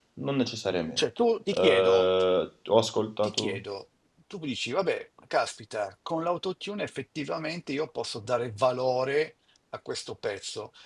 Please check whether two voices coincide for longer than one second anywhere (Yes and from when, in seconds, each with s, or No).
No